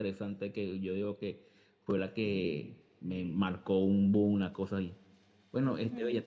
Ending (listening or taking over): listening